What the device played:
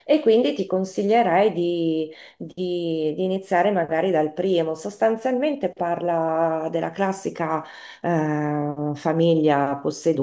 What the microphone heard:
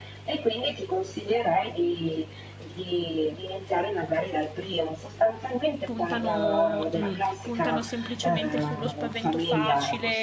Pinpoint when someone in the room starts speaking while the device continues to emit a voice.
5.8 s

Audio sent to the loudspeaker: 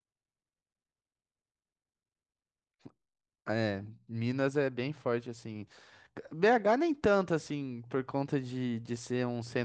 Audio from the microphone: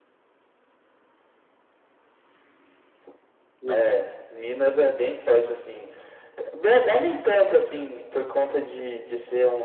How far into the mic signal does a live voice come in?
3.6 s

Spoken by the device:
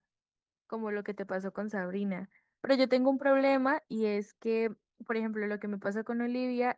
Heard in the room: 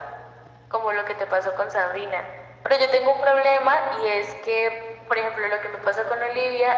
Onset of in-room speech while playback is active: none

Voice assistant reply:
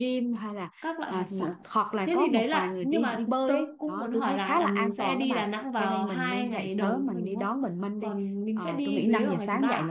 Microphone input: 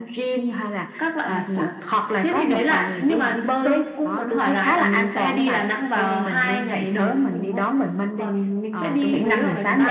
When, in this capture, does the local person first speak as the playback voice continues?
none

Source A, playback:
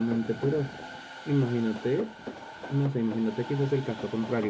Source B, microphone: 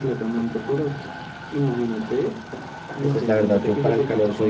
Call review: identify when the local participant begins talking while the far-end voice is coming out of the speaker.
3.0 s

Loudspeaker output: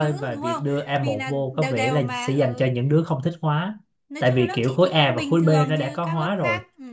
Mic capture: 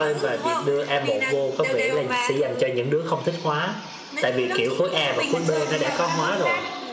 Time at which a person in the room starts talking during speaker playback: 5.0 s

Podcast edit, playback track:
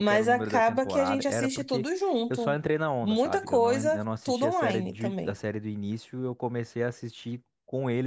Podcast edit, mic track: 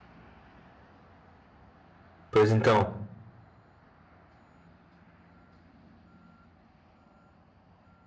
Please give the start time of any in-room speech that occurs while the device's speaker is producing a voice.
2.3 s

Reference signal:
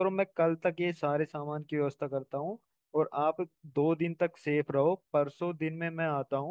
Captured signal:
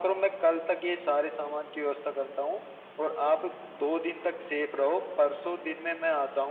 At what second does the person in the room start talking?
none

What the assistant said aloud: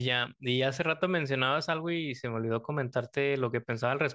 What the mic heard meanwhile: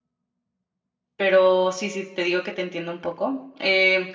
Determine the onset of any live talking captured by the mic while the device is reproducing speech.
1.1 s

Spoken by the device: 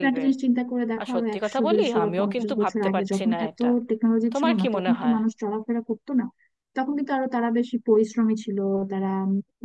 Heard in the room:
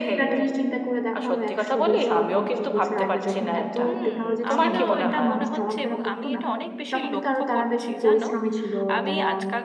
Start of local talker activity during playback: 3.8 s

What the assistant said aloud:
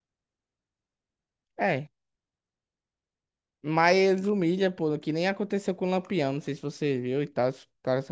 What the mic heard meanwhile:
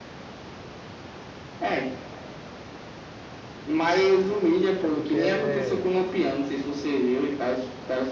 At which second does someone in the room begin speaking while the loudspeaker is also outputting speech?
4.8 s

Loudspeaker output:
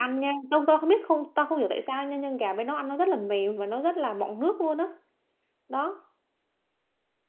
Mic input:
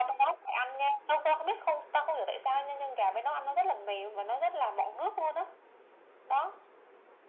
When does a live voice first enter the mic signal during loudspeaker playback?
none

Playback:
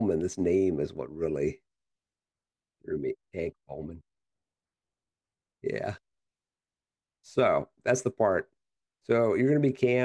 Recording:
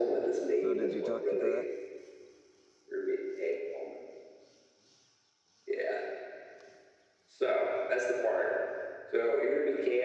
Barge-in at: 0.5 s

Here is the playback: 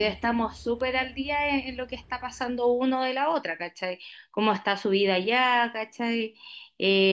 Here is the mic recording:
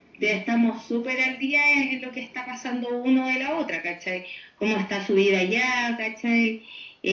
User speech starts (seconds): none

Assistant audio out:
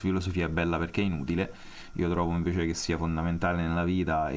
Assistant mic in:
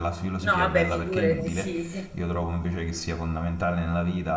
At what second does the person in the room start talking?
0.4 s

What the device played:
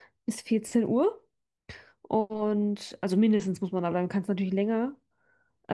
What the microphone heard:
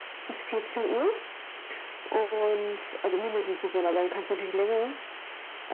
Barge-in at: none

